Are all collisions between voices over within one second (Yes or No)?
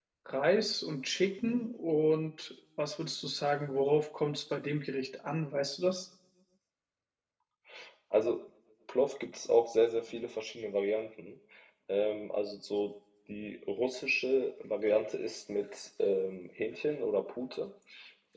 Yes